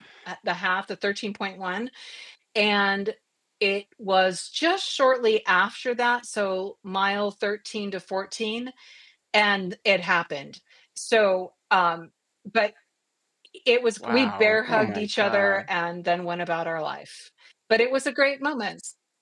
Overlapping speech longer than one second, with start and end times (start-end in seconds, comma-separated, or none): 14.0-15.6